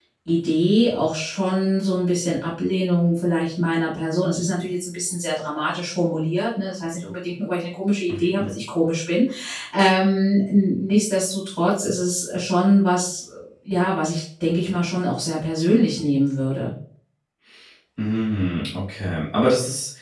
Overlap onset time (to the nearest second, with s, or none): none